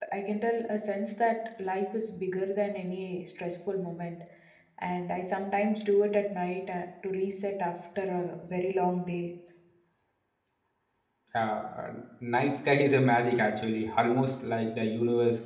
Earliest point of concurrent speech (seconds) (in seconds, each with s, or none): none